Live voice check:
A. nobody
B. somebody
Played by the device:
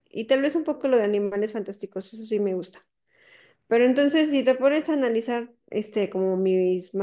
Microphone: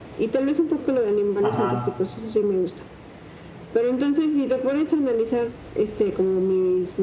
B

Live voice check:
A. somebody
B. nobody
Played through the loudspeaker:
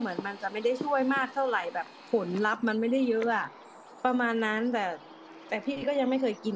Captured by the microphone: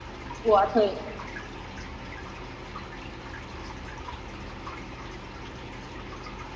A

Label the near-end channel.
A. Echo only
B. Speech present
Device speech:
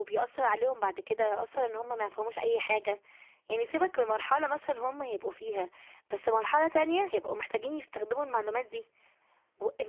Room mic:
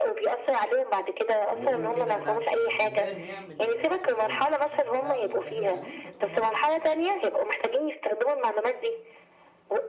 B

